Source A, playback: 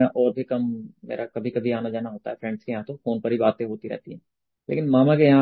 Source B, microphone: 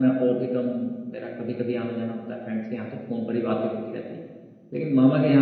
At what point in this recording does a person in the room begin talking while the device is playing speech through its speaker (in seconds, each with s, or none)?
none